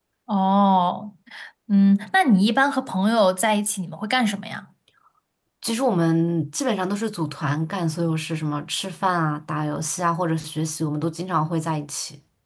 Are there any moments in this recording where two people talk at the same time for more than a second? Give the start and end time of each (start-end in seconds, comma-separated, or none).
none